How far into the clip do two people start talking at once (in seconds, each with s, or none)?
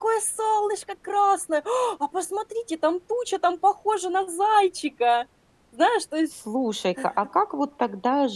none